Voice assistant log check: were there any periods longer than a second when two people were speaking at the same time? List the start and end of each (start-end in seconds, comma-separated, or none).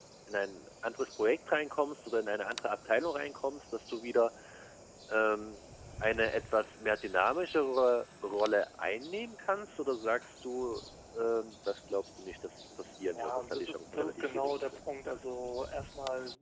13.1-14.8